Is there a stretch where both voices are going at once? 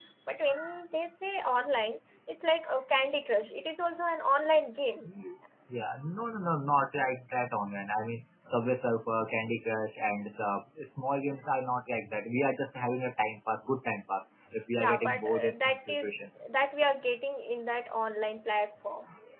Yes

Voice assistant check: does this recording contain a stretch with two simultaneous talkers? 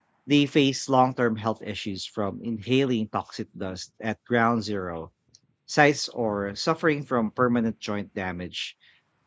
No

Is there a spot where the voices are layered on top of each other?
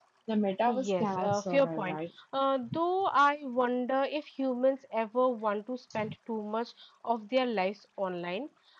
Yes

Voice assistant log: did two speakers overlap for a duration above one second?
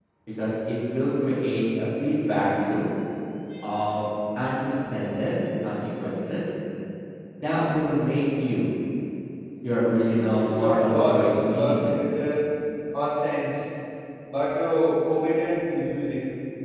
Yes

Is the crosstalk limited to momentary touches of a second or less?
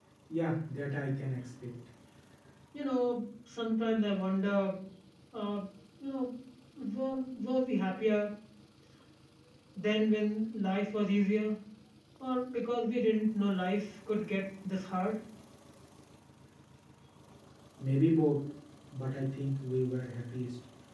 Yes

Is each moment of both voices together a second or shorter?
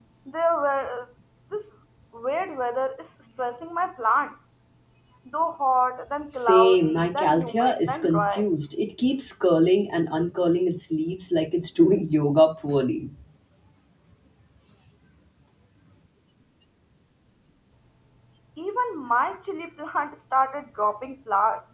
No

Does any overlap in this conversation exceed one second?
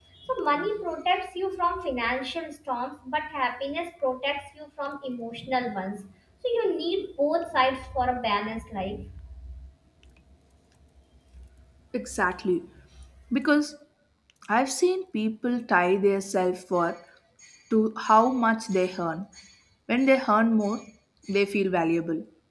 No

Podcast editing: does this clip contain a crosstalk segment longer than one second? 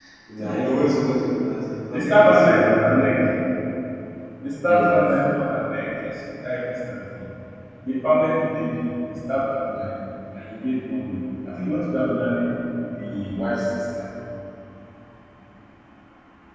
Yes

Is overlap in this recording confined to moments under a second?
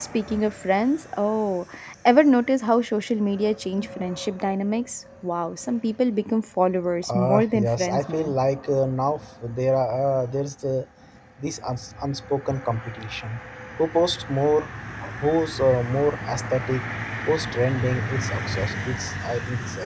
No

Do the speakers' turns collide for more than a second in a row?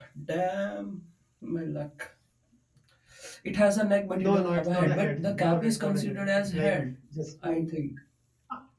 Yes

